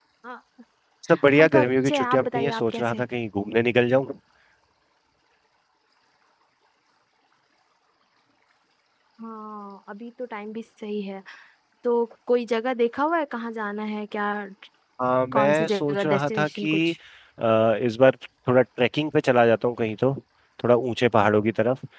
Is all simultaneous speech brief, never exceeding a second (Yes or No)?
No